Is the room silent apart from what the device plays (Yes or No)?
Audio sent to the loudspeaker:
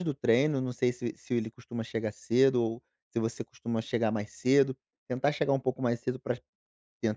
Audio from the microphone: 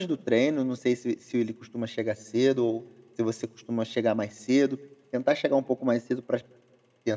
Yes